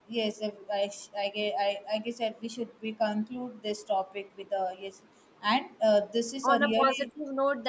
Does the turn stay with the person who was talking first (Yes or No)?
No